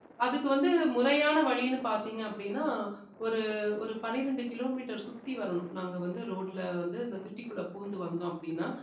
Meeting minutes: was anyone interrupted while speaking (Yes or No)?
No